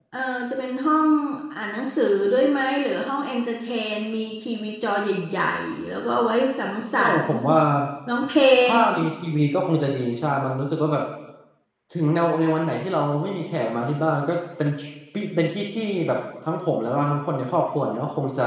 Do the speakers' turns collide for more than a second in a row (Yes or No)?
No